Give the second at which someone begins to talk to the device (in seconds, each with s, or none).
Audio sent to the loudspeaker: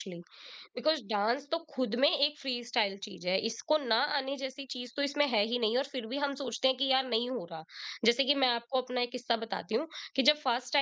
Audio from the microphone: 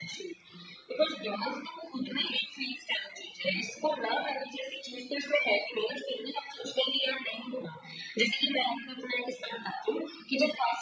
none